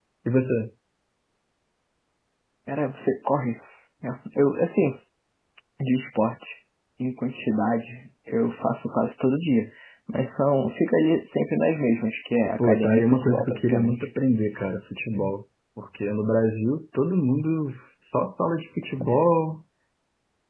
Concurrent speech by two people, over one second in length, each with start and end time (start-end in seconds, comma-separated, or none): 12.6-14.1